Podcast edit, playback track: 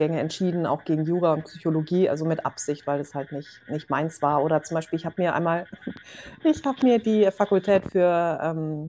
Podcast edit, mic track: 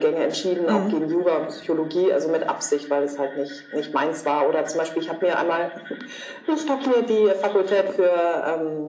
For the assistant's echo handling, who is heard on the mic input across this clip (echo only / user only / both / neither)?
both